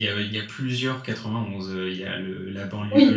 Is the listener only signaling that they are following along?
Yes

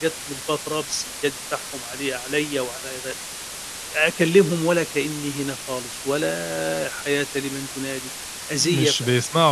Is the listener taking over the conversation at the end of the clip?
Yes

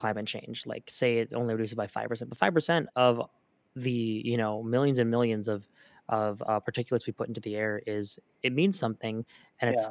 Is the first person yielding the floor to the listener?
No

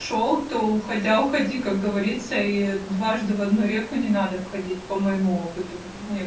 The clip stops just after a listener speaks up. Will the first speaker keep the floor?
No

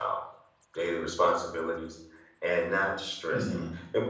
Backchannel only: Yes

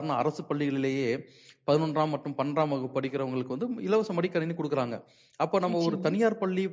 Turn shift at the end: No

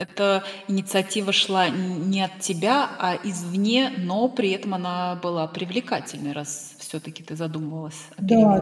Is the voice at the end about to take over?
Yes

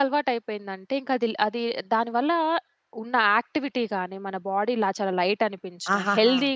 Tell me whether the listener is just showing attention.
Yes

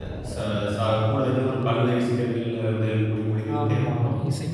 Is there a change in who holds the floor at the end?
Yes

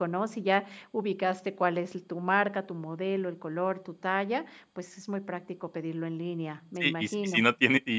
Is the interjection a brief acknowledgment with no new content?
No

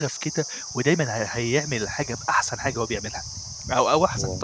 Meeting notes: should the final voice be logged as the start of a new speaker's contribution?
No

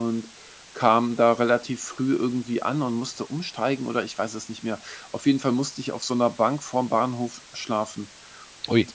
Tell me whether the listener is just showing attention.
Yes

